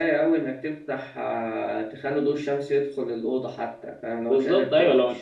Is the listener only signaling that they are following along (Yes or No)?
No